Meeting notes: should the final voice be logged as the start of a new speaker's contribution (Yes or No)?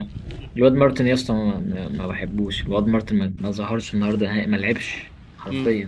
Yes